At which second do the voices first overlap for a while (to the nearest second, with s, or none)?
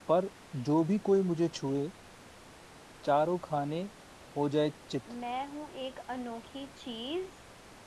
none